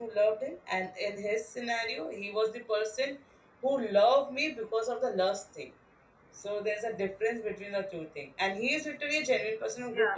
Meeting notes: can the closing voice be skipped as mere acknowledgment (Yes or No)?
Yes